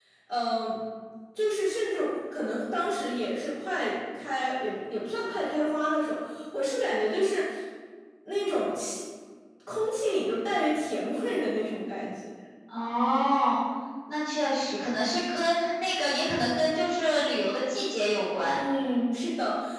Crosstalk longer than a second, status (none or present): none